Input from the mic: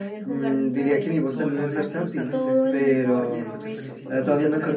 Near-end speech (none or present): present